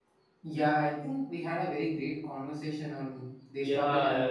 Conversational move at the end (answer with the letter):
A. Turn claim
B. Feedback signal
A